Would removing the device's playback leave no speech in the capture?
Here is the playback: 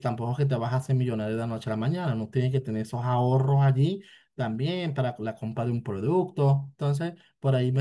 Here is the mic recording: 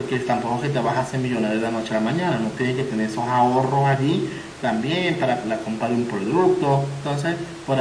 Yes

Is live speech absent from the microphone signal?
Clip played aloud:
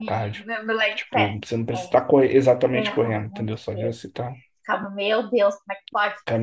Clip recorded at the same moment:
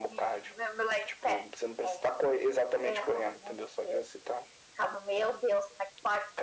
Yes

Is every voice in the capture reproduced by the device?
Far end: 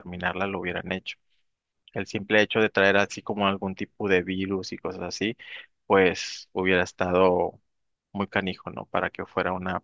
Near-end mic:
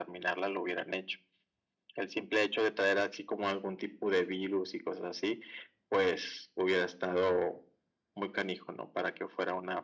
Yes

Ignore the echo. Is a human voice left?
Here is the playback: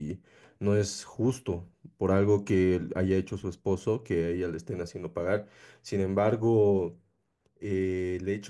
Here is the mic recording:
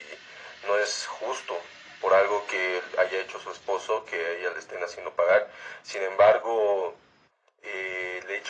No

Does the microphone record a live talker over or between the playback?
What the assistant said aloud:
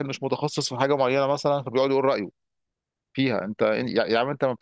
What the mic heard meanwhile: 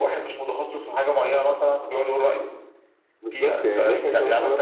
Yes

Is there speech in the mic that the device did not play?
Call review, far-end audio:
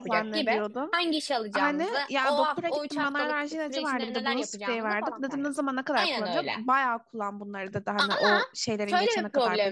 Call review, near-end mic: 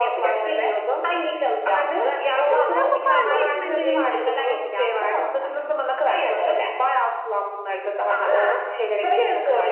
Yes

